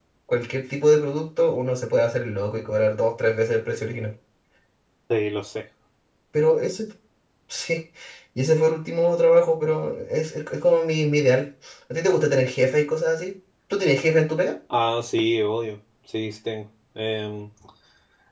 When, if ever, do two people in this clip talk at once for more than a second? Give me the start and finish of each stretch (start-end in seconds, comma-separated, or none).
none